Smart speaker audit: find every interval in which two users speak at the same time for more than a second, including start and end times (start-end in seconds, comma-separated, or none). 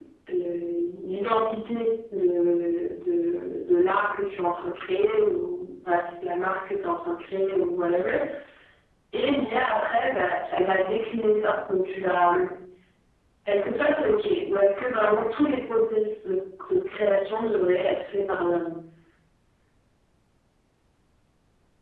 none